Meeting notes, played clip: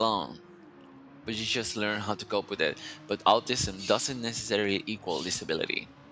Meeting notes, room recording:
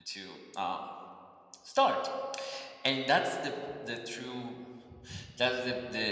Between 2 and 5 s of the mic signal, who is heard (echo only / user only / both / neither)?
user only